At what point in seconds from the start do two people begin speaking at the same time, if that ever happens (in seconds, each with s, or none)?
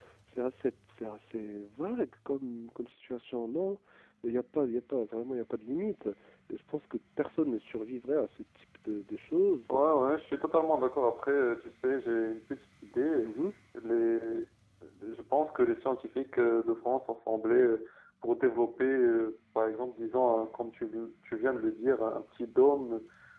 none